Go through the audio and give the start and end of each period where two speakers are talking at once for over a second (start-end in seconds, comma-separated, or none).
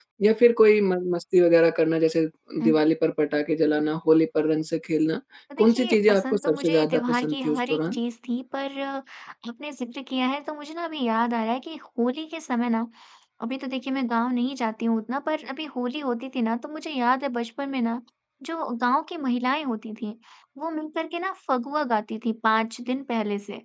5.6-8.0